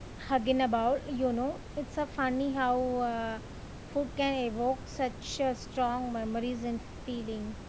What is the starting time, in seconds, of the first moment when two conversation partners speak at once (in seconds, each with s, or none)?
none